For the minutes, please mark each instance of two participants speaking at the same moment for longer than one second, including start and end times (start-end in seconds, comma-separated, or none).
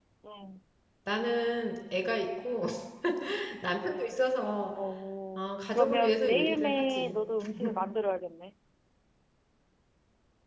5.3-7.2